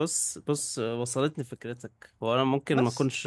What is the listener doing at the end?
listening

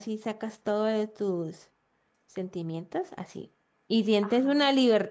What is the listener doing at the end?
listening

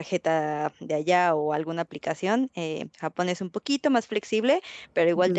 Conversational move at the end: listening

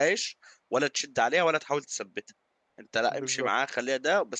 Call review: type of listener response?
listening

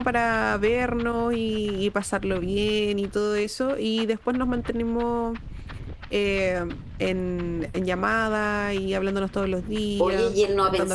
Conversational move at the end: taking over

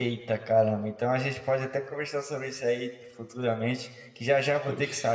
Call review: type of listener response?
listening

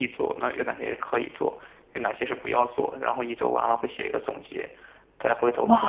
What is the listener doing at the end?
taking over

